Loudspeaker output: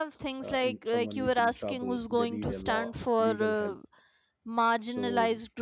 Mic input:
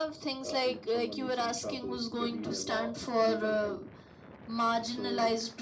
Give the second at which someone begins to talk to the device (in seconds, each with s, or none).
none